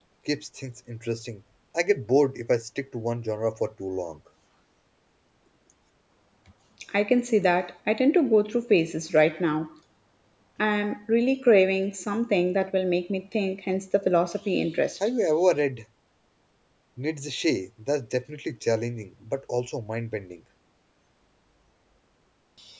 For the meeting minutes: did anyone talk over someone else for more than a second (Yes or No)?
No